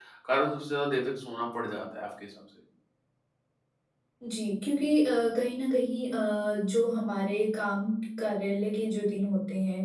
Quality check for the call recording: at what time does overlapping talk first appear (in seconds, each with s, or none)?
none